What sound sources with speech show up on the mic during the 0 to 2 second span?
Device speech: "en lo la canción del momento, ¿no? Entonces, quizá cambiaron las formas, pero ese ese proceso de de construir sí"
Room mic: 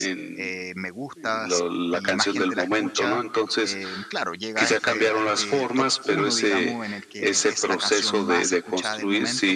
both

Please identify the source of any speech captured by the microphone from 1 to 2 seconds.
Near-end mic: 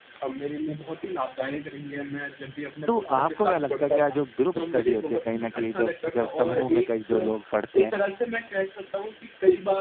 echo only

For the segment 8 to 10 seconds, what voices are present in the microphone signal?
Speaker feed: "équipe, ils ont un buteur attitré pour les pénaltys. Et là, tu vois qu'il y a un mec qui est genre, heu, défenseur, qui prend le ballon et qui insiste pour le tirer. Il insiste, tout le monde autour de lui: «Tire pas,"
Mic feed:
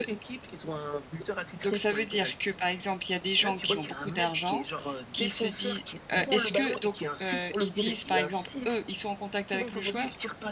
both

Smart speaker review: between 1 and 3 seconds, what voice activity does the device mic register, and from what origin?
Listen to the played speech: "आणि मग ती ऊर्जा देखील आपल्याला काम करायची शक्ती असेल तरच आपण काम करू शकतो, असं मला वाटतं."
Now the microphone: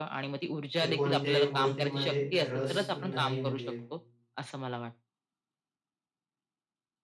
both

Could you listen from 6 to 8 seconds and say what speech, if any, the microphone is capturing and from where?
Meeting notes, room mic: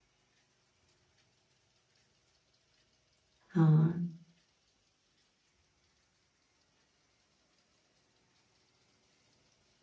neither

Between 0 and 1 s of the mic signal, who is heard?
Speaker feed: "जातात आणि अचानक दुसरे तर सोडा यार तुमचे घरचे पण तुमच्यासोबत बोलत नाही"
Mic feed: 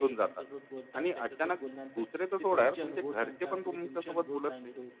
both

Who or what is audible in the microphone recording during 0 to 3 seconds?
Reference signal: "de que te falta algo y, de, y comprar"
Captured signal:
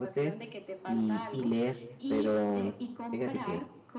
both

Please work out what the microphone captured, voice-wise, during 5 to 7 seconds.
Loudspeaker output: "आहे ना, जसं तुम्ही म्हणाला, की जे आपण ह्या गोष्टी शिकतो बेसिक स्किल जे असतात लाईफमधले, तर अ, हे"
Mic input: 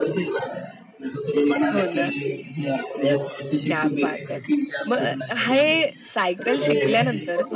both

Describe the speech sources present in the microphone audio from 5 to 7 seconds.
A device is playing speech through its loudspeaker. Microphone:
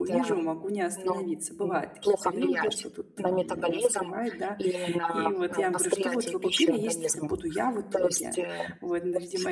both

